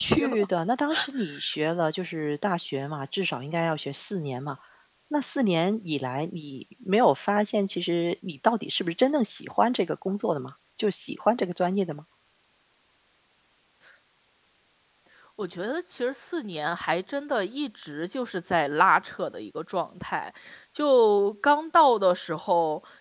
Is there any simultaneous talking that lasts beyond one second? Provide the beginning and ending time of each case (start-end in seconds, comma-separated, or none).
none